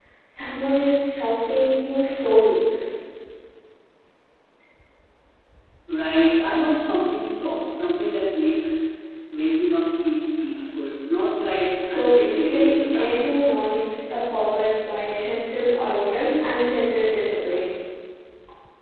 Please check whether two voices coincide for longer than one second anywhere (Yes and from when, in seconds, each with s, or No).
Yes, from 11.8 s